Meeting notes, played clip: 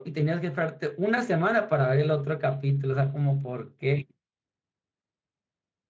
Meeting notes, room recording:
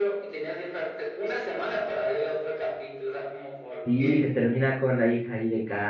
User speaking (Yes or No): Yes